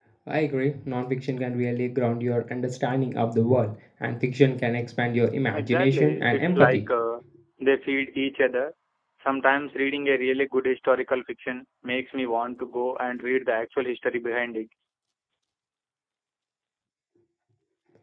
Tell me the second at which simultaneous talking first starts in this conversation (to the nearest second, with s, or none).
6 s